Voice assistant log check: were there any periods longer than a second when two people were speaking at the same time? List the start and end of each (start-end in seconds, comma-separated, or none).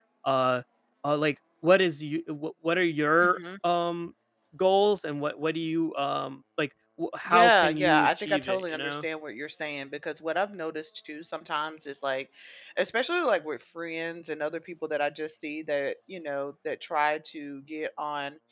7.3-9.0